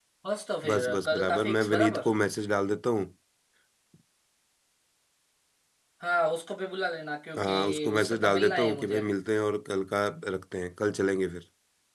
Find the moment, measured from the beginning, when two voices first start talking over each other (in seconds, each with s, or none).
0.7 s